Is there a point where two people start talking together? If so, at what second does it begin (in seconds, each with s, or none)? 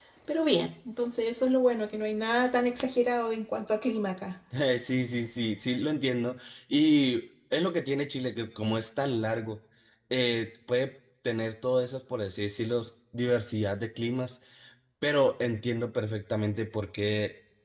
none